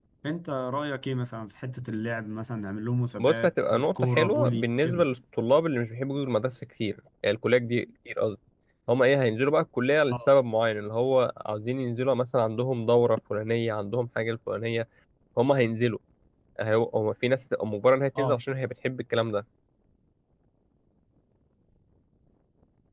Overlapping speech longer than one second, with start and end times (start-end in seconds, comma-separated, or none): 3.2-5.0